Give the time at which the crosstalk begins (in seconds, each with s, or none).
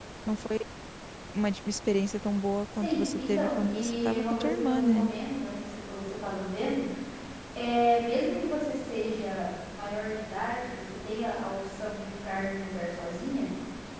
2.8 s